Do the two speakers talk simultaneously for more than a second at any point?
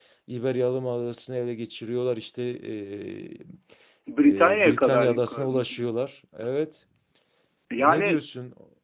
Yes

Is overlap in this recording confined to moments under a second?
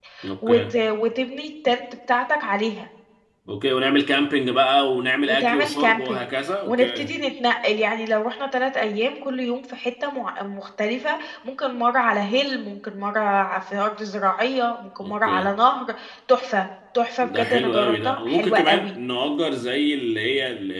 No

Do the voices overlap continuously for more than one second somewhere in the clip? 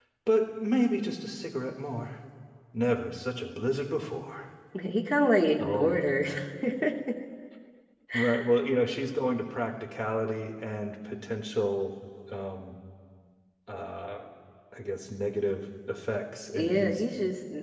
No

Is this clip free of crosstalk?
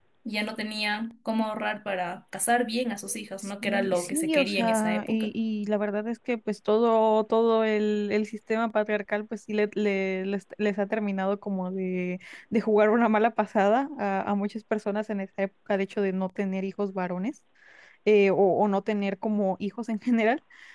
No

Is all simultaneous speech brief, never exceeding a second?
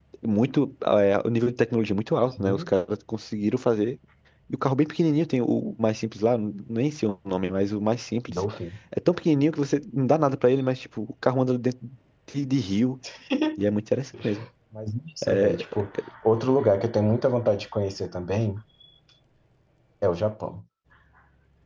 Yes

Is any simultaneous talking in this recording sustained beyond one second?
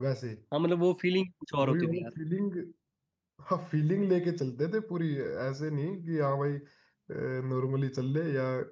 No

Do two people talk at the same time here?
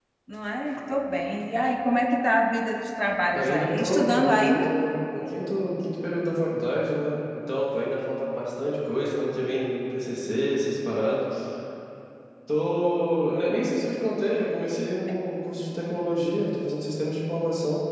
Yes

